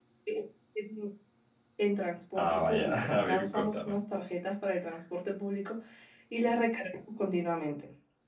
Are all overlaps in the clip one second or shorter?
No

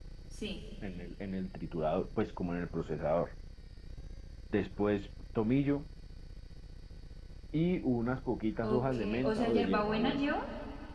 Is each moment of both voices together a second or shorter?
No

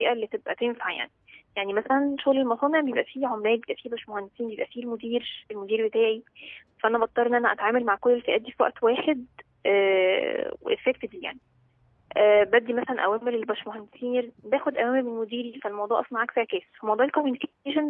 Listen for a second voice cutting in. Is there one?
No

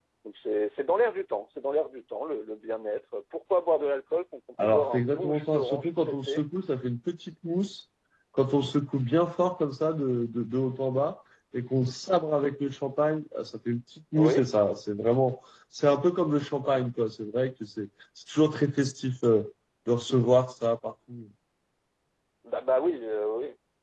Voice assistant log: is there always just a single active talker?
No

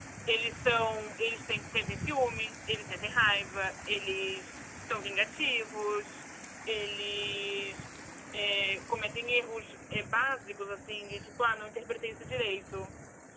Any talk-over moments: No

